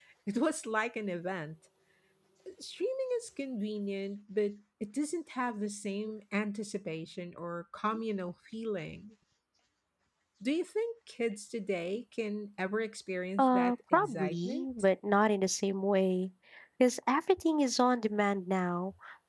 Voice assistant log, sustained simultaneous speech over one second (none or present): present